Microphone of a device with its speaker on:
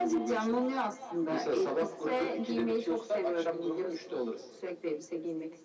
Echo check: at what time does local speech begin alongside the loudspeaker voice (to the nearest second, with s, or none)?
none